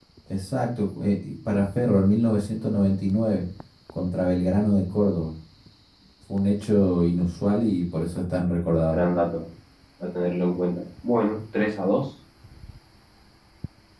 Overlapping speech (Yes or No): No